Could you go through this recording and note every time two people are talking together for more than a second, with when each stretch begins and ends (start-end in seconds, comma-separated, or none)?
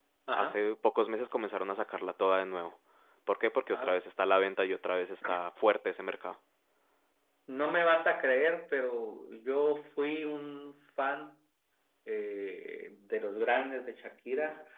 none